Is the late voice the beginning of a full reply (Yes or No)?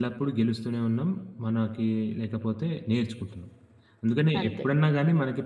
No